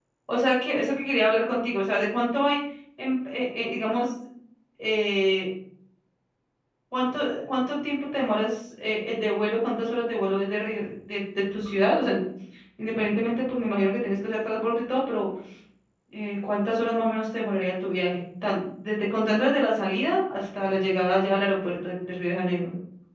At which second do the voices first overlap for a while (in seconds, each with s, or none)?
none